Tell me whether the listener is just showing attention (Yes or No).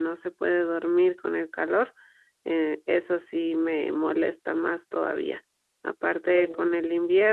Yes